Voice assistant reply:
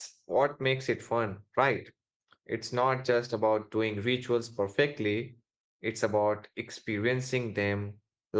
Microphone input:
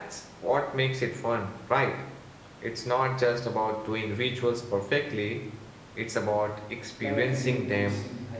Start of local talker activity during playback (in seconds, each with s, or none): 7.0 s